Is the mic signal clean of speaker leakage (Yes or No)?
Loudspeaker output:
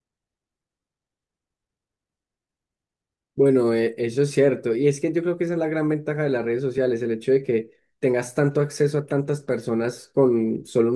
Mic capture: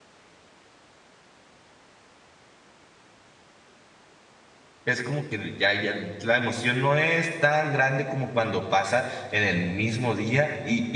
Yes